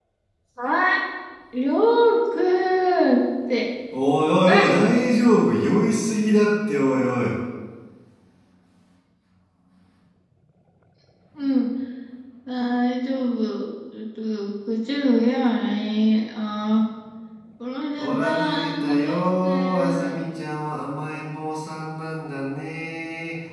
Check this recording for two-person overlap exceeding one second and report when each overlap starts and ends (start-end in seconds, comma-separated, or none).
18.0-20.2